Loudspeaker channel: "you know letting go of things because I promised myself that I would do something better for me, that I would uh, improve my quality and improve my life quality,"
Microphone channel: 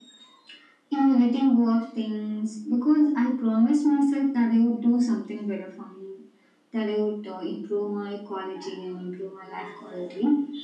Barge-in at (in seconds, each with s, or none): none